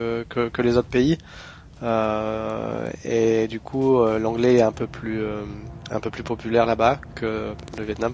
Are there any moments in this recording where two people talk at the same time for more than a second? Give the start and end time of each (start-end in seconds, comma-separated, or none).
none